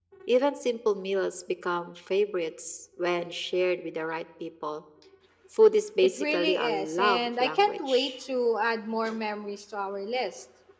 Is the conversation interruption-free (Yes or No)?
No